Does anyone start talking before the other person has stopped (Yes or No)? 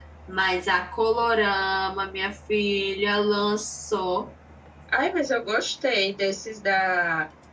No